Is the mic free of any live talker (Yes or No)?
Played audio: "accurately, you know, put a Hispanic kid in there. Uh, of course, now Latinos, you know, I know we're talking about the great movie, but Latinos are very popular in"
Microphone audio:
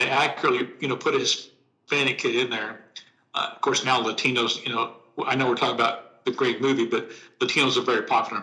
Yes